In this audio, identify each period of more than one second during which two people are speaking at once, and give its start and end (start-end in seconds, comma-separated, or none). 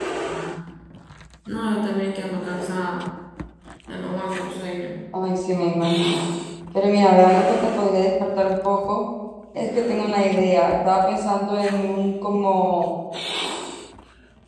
none